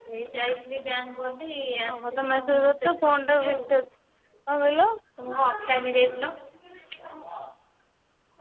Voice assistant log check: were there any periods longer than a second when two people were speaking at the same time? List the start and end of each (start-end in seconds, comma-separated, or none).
1.9-3.6